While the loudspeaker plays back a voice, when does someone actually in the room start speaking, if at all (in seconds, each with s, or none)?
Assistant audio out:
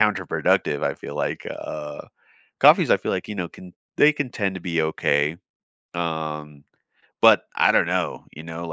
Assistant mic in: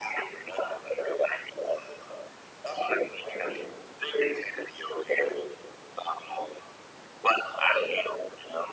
none